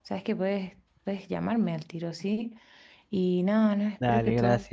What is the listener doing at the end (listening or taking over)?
listening